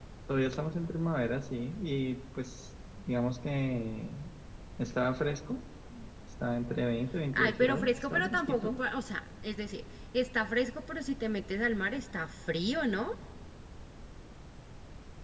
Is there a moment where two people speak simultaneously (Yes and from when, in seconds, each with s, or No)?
Yes, from 7.3 s